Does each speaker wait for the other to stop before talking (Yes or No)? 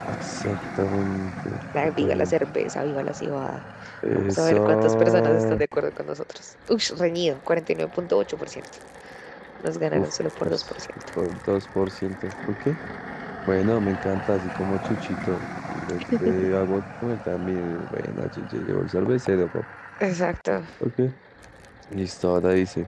No